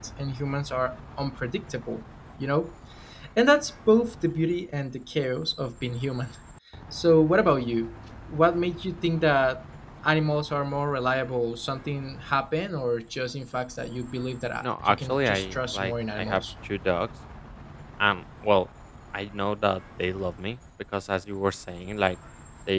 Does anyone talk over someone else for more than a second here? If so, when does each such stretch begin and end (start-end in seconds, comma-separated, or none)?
14.6-16.4